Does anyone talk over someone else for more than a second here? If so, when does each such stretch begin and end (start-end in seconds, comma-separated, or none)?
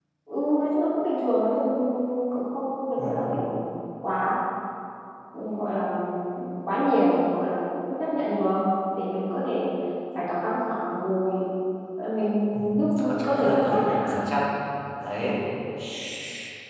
12.8-14.2